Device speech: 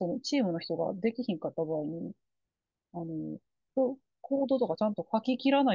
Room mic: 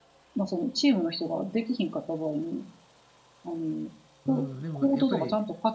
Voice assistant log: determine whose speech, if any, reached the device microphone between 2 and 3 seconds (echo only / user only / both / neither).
echo only